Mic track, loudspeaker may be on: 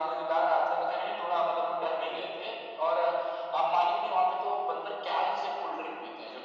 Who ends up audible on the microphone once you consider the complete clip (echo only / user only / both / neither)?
echo only